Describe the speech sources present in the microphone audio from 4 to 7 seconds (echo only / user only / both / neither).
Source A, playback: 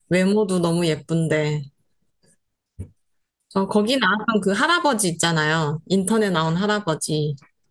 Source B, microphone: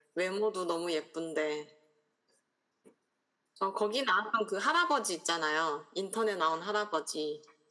echo only